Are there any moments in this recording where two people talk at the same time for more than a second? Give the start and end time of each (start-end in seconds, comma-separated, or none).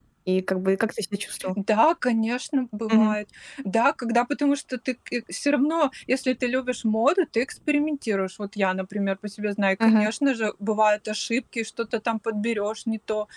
none